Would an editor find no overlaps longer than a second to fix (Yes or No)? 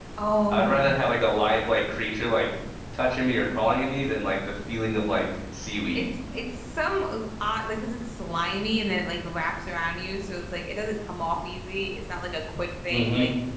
Yes